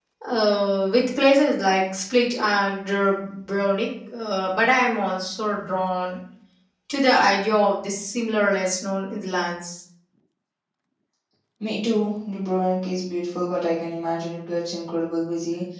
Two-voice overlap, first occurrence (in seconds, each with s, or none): none